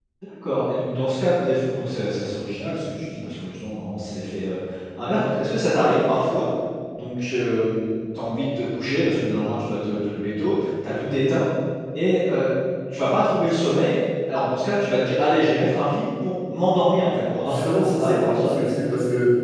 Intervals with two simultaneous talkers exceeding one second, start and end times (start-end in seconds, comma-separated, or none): 17.4-18.8